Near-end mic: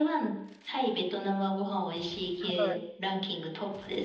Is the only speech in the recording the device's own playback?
No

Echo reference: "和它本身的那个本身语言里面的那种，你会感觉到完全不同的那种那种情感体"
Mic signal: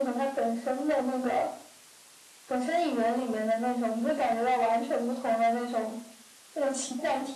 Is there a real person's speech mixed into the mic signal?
No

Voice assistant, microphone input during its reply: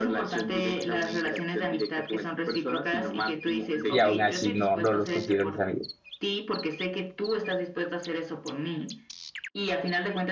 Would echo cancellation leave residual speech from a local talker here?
Yes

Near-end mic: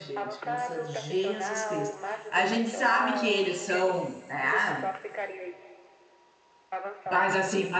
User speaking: Yes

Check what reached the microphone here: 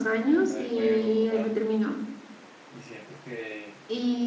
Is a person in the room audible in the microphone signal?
Yes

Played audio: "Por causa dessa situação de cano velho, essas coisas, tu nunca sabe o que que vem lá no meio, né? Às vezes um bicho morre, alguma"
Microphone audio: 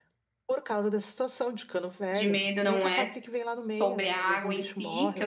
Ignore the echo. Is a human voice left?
Yes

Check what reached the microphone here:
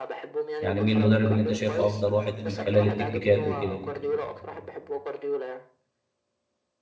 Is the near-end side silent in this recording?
No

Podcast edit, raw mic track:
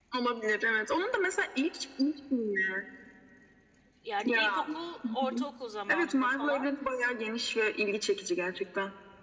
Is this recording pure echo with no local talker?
No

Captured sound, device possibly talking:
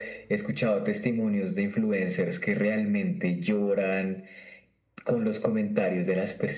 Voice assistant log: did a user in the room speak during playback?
No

